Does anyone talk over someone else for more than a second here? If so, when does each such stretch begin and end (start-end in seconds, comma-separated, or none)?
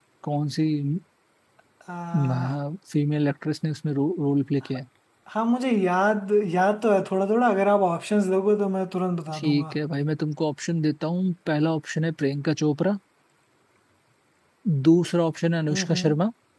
none